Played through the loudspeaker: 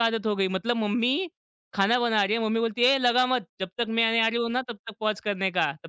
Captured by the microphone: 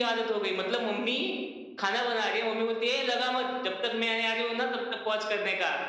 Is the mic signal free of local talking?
Yes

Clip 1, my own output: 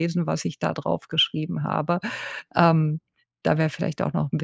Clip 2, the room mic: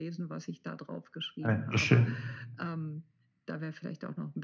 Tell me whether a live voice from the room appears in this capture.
Yes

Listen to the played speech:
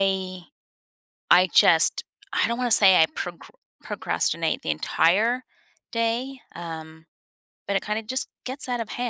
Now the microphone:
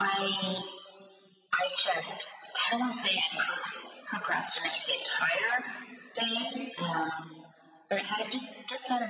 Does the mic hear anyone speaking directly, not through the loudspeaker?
No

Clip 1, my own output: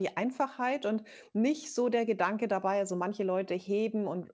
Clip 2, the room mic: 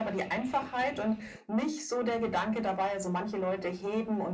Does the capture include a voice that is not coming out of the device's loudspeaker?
No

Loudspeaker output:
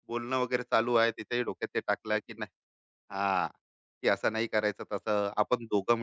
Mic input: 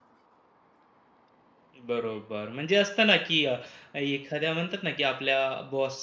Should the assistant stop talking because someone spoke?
Yes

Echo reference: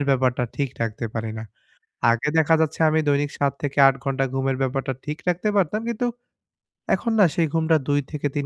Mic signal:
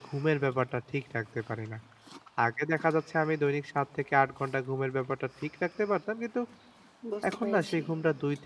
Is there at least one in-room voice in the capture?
Yes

